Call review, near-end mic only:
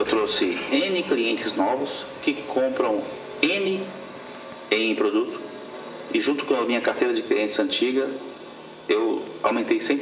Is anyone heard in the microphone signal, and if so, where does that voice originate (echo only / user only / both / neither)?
echo only